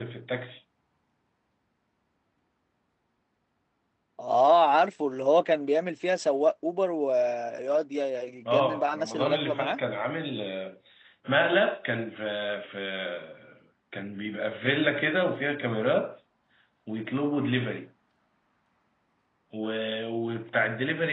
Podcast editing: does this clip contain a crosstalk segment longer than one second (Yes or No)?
Yes